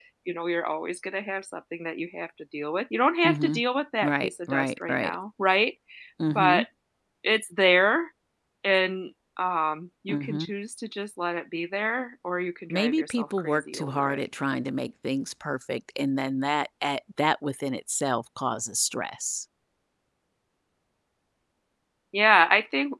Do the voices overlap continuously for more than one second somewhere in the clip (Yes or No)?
Yes